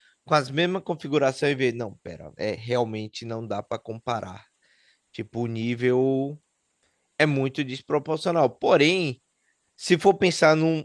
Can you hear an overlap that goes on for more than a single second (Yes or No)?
No